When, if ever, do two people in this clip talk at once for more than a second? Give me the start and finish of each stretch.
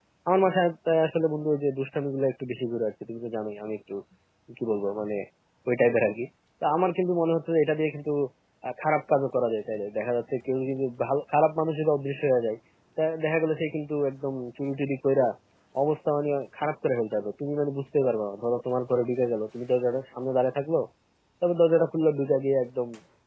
none

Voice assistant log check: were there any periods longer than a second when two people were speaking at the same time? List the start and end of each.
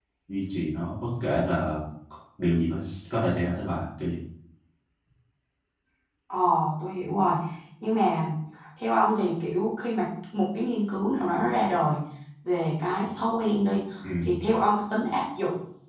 none

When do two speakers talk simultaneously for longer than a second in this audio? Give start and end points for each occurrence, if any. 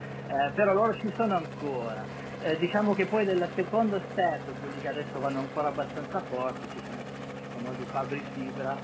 none

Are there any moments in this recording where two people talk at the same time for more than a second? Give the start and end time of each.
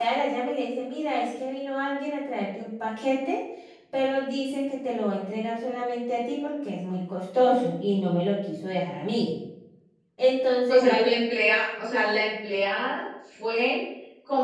none

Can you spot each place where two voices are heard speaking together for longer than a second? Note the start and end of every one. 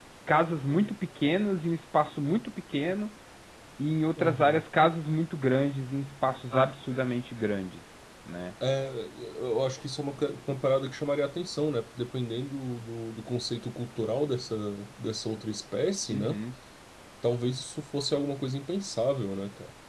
none

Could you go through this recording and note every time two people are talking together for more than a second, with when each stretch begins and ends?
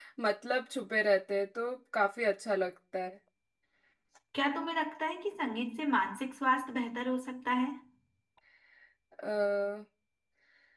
none

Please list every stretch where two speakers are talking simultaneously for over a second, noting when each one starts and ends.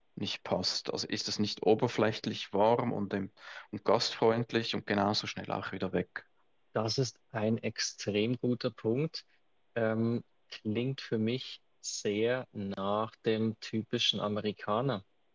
none

